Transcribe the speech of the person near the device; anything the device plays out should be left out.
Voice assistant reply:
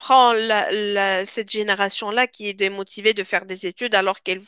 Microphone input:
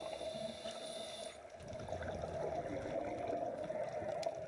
none

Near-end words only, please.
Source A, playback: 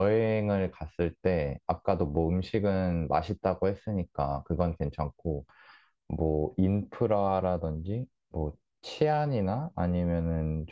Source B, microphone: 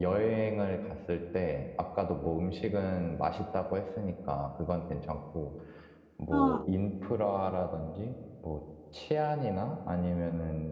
아,

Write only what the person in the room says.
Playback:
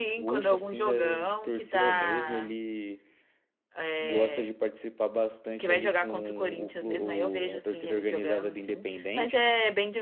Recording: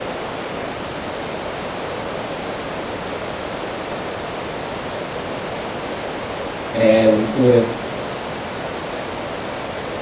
É loucura.

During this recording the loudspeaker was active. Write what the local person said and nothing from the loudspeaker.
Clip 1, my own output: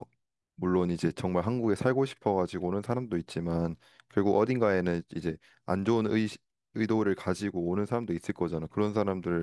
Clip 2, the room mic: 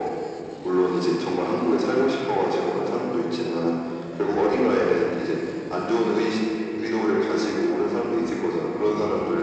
none

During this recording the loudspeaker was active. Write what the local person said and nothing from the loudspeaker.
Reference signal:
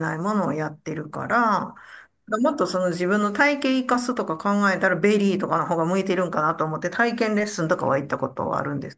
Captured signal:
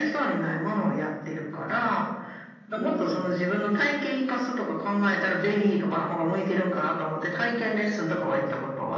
うーん。

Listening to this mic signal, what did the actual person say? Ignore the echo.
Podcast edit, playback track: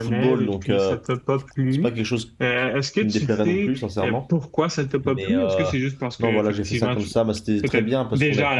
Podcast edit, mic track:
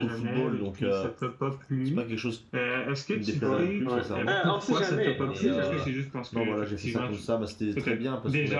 Ouais, ouais. Ben, on sait jamais, on sait jamais.

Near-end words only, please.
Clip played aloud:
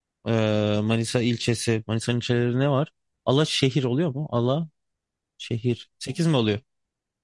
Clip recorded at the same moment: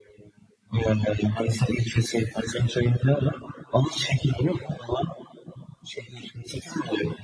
none

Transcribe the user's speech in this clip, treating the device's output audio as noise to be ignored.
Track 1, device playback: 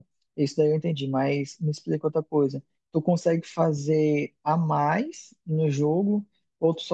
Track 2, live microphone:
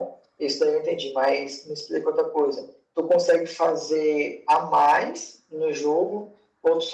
none

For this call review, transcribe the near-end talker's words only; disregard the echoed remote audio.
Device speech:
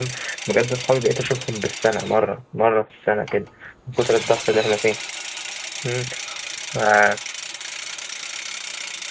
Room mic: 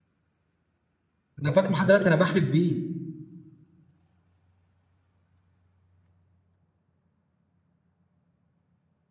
انا فاكره لحد دلوقتي انا بحلف بيه

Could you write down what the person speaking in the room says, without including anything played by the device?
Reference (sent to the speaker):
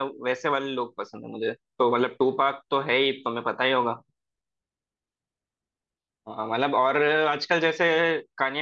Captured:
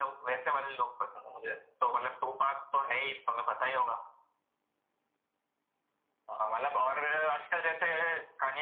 none

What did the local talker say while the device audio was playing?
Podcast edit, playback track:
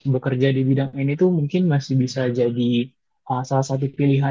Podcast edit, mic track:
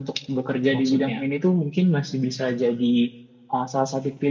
maksudnya.

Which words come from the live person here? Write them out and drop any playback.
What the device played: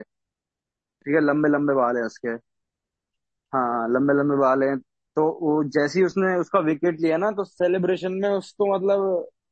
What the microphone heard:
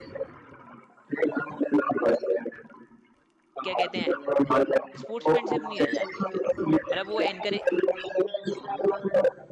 क्या कहते हैं स्पोर्ट्समैनशिप नहीं रह जाती है फिर मतलब वो एनकरेज

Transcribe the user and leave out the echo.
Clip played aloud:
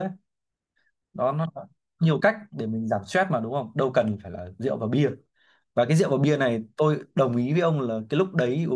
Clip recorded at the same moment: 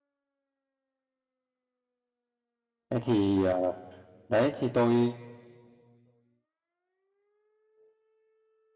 Thế thì ờ, đấy thì tôi

